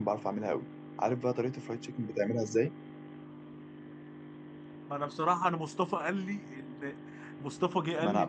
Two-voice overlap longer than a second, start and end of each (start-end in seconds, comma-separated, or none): none